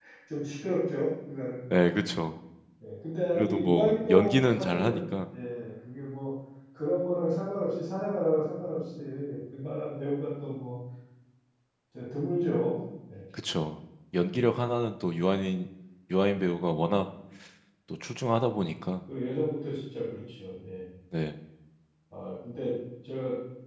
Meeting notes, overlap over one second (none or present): present